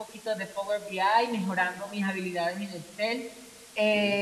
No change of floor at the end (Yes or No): Yes